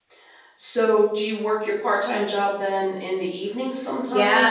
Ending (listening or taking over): taking over